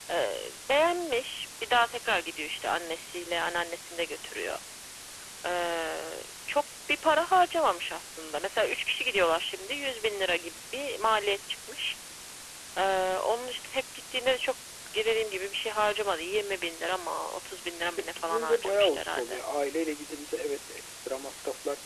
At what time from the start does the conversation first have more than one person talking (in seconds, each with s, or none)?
18.0 s